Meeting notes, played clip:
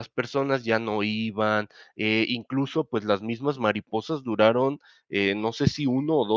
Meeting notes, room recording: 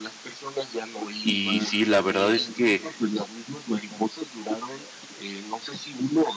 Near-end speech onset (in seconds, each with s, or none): 1.2 s